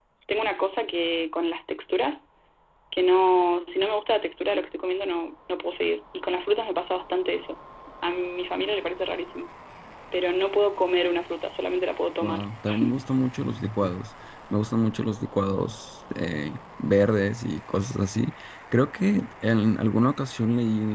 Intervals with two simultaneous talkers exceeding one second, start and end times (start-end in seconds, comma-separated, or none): none